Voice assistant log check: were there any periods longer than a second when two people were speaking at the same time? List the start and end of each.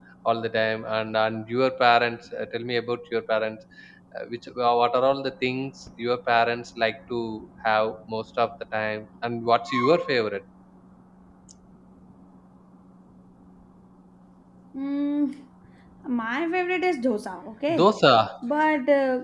none

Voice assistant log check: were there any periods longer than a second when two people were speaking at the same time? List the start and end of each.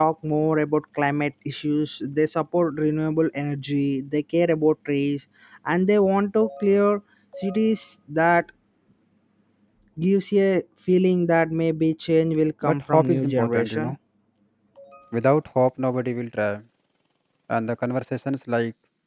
12.6-13.9

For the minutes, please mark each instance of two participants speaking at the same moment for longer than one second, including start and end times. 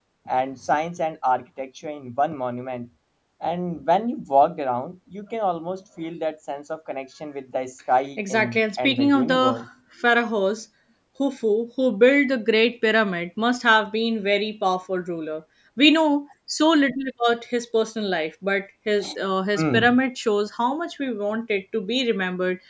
8.2-9.6

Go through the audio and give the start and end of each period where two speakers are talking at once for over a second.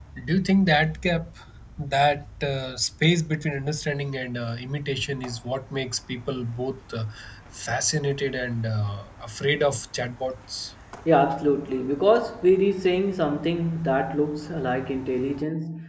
none

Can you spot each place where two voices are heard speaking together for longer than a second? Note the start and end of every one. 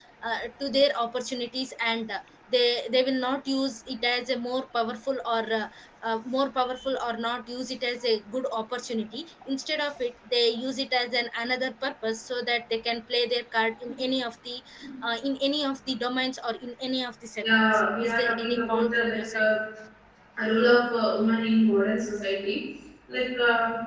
17.4-19.5

